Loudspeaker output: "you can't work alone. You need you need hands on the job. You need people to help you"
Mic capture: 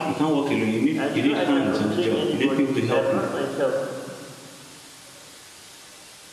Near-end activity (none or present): present